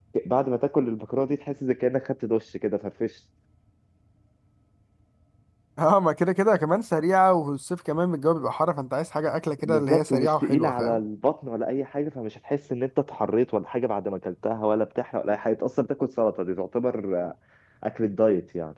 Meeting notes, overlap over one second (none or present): present